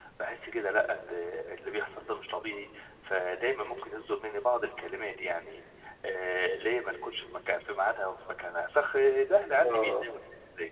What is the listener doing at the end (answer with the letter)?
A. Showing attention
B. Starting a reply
A